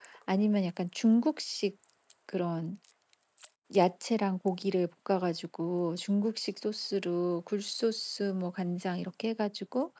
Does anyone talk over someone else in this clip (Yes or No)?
No